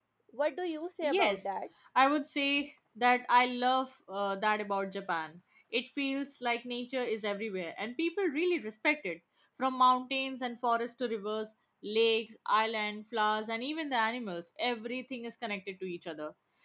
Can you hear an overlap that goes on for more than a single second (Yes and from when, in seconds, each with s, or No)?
No